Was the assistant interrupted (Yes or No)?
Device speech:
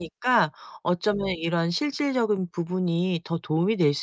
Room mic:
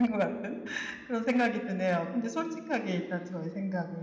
Yes